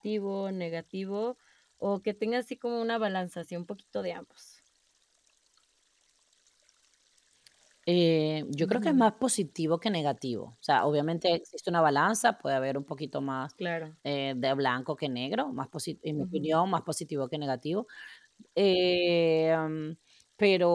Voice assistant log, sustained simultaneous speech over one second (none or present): none